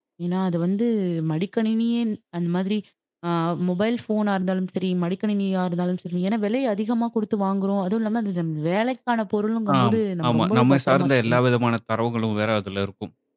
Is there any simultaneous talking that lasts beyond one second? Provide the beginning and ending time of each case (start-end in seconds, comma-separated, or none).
9.8-11.4